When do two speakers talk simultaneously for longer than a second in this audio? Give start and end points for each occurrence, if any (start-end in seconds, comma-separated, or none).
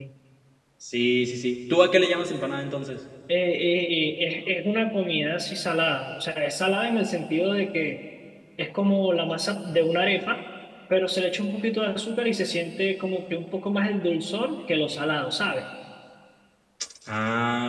none